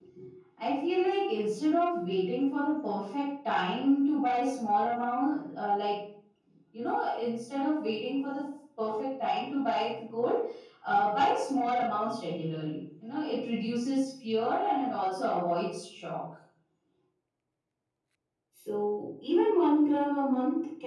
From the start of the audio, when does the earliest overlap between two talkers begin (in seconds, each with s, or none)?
none